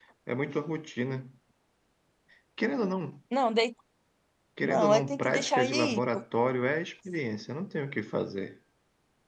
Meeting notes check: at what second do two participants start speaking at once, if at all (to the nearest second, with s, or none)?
5 s